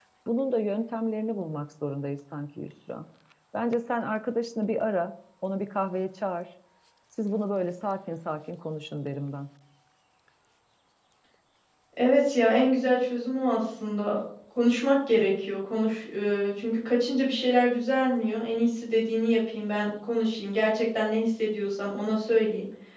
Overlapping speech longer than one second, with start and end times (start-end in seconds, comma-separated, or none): none